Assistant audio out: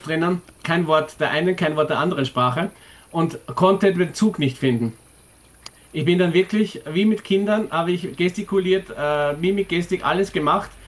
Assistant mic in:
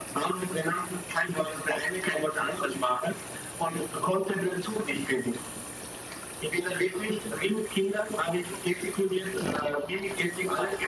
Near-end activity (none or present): none